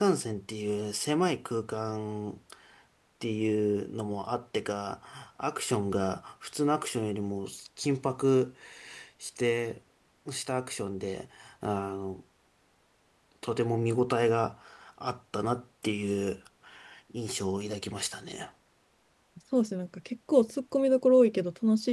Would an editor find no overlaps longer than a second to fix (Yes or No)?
Yes